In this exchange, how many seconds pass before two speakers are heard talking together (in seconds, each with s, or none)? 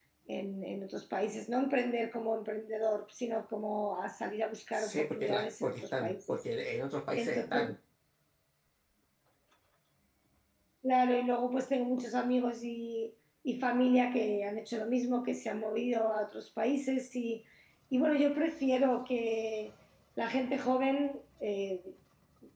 4.7 s